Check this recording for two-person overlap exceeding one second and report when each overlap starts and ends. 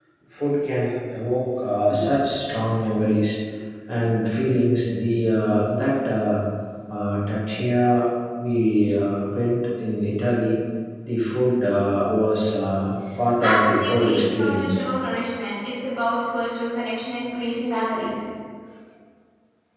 13.4-14.8

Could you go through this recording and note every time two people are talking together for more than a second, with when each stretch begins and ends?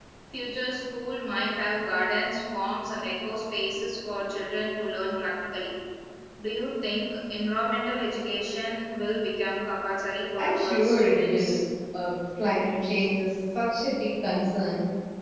10.4-11.6

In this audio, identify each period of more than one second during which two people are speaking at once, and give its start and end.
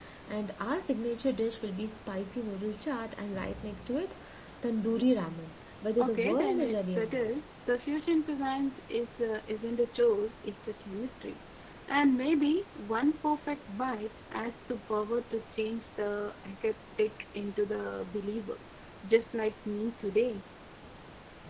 6.0-7.3

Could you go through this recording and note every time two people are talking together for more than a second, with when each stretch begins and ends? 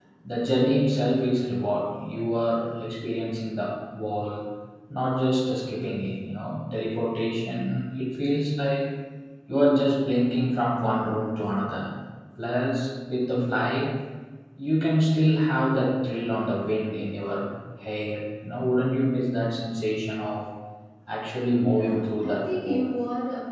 21.6-23.0

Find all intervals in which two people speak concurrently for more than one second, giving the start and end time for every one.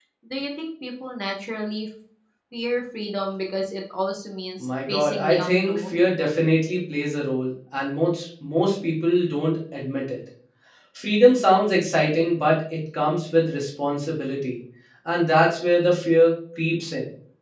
4.6-6.0

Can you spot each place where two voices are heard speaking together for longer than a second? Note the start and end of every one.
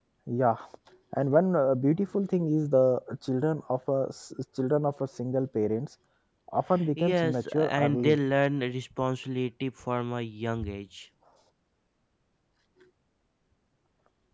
7.0-8.2

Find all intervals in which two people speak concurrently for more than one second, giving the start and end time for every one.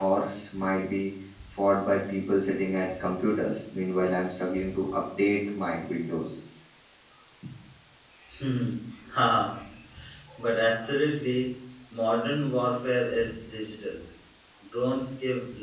none

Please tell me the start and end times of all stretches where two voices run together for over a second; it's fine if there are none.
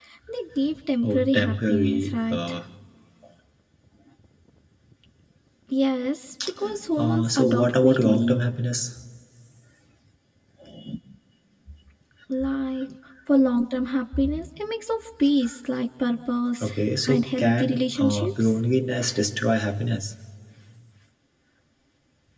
1.0-2.4, 7.0-8.4, 17.1-18.5

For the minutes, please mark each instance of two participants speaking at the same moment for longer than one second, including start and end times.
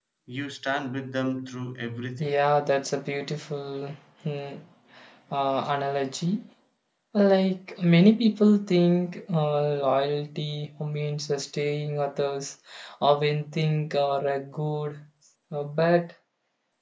none

